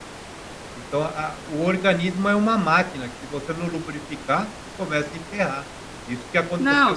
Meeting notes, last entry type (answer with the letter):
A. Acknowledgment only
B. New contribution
B